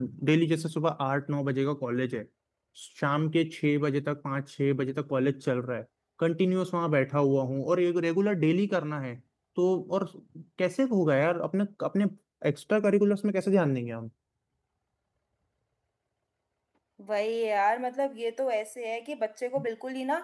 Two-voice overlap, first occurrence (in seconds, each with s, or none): none